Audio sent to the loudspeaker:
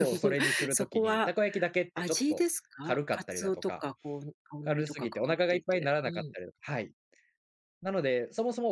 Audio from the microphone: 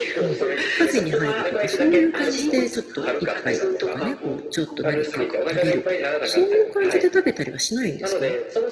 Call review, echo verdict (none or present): present